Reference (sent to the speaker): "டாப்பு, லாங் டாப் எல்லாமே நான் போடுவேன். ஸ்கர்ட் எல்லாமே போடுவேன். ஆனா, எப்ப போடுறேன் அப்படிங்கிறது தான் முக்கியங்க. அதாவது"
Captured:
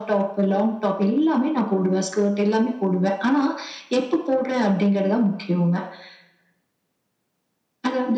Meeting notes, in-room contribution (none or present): none